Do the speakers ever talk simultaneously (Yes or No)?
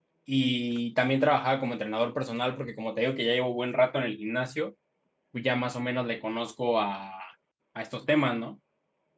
No